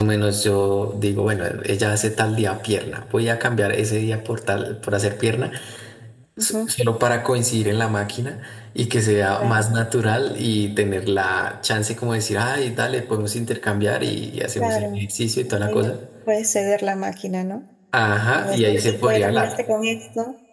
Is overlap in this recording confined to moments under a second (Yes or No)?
No